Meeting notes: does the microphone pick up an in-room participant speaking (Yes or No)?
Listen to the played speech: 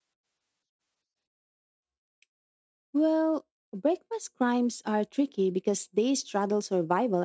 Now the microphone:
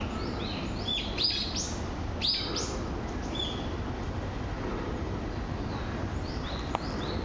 No